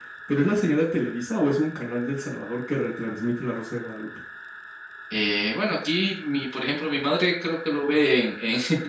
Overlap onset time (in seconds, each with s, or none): none